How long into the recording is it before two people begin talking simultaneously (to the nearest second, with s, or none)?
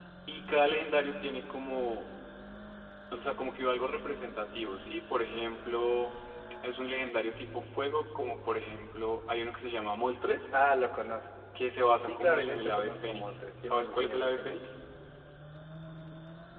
12 s